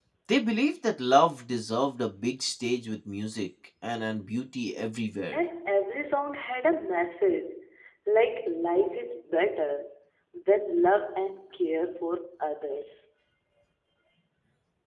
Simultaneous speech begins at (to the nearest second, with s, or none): none